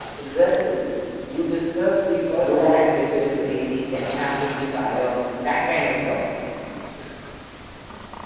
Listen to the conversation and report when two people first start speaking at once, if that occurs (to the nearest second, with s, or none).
2 s